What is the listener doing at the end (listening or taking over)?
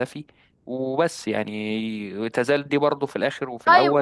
taking over